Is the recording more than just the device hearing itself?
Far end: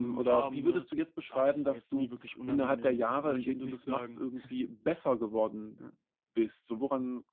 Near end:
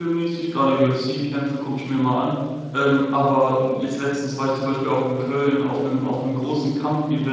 Yes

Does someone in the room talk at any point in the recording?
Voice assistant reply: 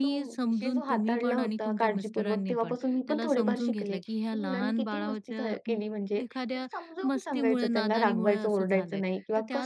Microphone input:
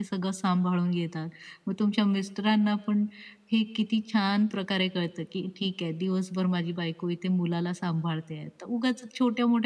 Yes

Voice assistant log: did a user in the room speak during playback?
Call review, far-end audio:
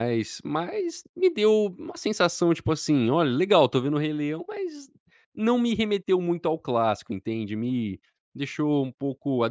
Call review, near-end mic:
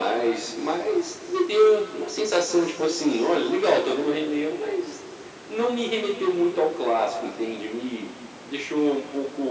No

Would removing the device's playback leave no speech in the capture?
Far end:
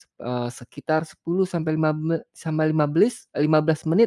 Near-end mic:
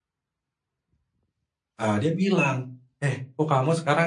No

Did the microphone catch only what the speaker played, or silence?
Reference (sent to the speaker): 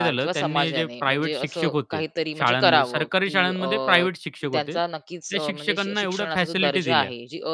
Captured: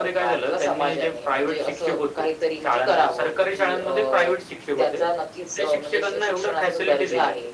Yes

